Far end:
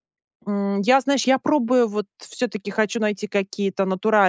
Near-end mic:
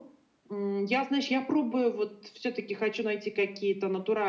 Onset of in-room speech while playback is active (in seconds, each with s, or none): none